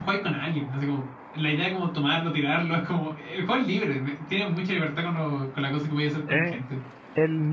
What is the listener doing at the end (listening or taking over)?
taking over